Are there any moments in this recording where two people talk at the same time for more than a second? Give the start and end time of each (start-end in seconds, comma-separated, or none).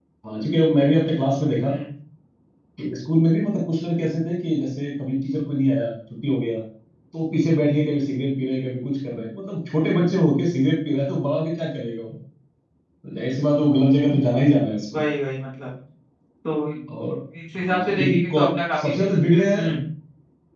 17.6-19.0